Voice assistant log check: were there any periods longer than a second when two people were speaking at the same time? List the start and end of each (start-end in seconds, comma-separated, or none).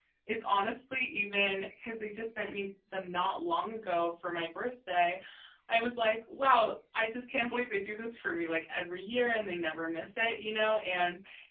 none